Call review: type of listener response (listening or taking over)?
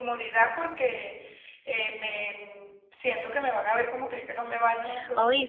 taking over